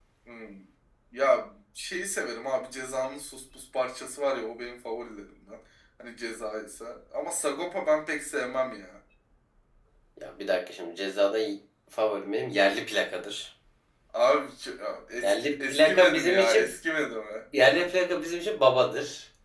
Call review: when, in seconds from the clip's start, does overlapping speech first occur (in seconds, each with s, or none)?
15.2 s